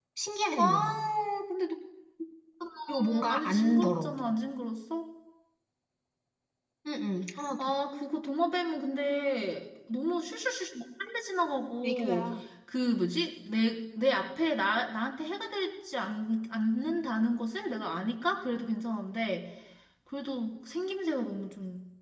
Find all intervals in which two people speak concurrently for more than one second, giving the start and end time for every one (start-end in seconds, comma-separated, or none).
2.9-4.1